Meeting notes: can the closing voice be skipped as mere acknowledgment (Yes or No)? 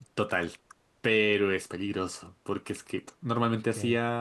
Yes